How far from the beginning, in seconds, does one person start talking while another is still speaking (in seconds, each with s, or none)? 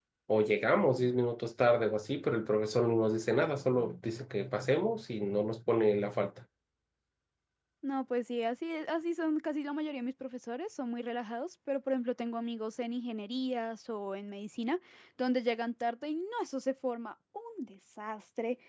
none